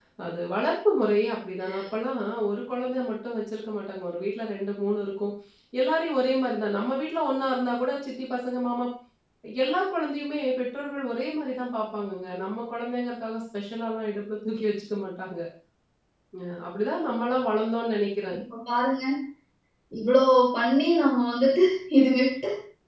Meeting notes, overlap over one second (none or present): none